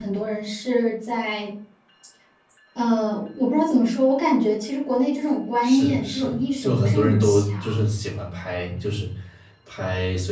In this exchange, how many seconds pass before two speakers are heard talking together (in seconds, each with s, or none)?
5.6 s